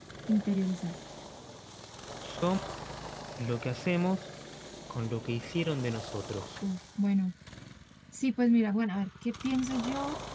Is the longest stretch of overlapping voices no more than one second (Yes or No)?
Yes